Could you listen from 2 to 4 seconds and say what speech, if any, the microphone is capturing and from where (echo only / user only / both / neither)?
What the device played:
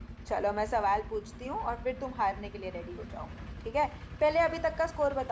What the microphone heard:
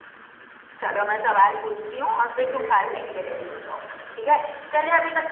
both